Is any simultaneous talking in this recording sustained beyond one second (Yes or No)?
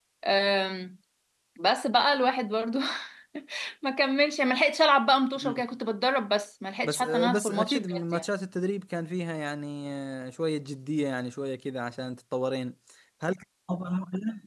Yes